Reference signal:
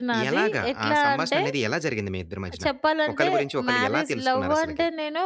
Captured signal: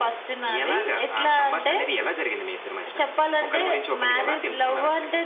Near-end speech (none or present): none